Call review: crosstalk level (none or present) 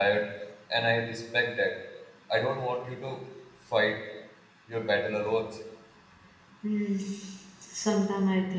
none